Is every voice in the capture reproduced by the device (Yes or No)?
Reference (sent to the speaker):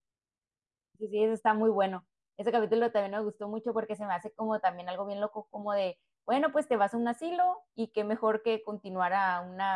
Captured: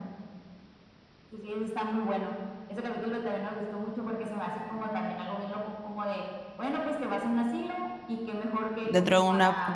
No